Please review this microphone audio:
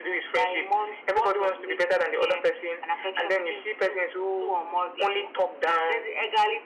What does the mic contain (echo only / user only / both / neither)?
echo only